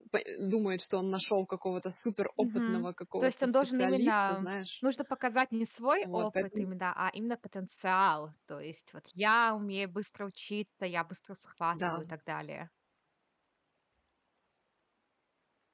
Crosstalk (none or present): present